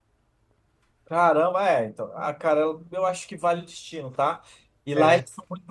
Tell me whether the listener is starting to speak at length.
No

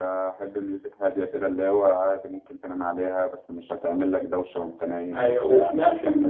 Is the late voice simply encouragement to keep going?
No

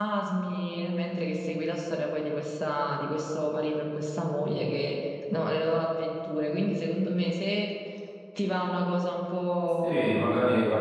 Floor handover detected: Yes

